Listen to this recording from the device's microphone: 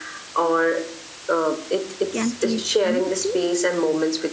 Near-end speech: present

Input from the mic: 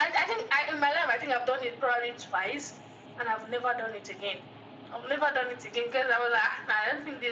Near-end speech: none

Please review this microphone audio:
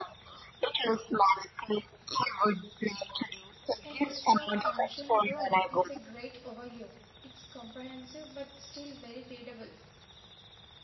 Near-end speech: present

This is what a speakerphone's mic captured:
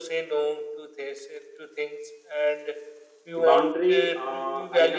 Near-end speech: present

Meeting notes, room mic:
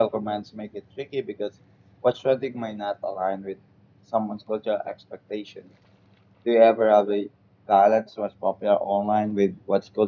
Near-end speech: present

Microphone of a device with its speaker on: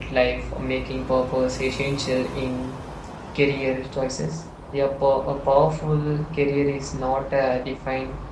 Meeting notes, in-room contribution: present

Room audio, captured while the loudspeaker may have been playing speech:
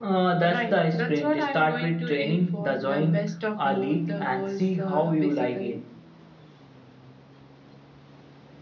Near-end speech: none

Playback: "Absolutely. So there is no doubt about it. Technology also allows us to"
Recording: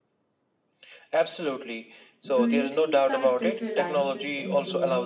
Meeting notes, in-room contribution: present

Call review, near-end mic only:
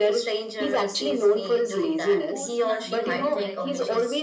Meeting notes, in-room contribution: present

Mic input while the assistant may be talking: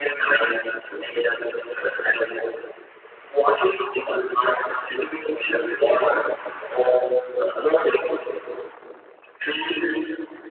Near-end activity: none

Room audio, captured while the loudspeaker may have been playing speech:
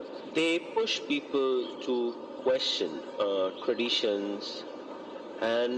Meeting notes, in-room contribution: none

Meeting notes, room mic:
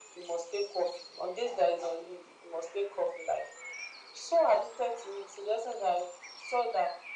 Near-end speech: none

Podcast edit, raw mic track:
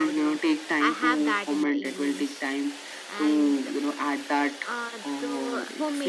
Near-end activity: present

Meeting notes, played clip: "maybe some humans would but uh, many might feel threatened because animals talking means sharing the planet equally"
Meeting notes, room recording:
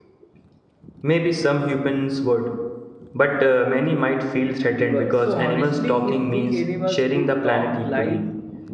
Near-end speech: present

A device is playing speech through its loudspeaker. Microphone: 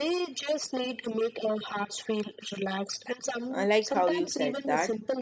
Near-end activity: present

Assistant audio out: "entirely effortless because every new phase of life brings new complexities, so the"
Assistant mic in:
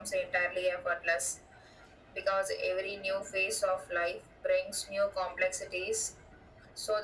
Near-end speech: none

